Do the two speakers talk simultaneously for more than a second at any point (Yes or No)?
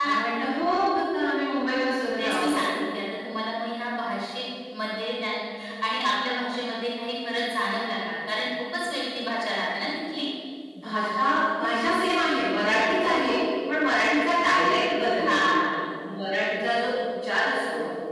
No